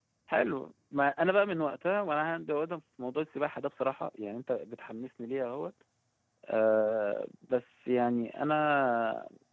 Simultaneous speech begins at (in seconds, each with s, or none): none